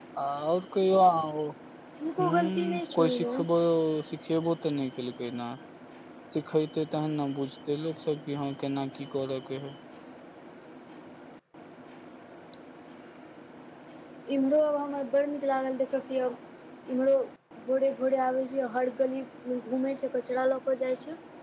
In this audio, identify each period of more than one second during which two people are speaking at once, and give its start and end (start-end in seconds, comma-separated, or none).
2.2-3.4